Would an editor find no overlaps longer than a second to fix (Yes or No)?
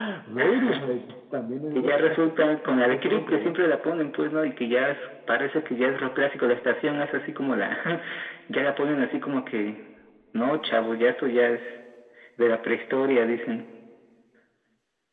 No